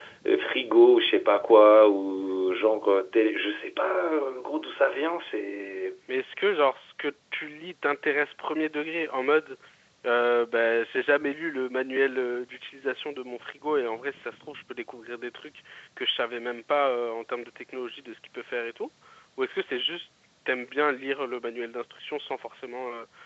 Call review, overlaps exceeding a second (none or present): none